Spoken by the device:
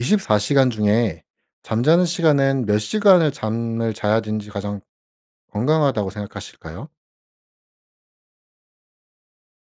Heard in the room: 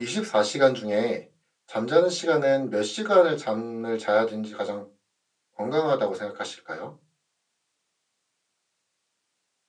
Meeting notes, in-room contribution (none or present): none